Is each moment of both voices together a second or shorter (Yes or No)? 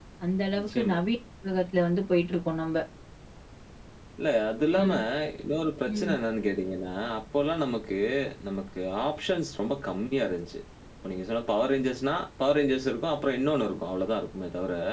Yes